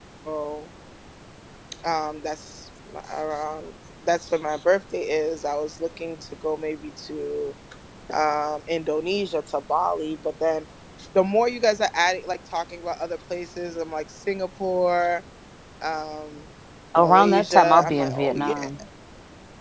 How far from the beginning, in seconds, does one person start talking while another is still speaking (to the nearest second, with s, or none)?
17 s